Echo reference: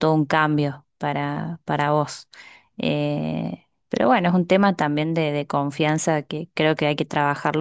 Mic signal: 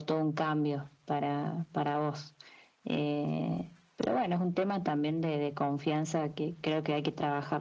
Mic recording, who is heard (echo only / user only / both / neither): echo only